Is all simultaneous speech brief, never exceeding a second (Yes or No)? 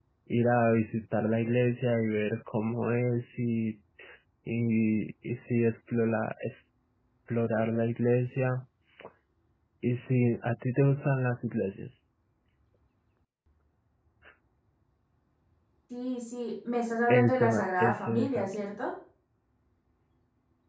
No